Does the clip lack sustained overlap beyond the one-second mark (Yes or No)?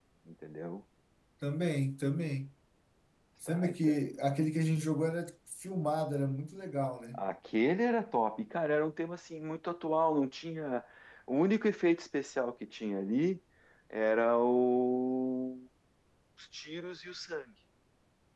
Yes